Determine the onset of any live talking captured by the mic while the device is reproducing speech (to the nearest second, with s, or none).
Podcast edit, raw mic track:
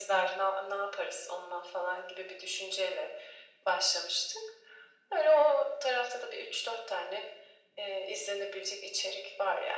none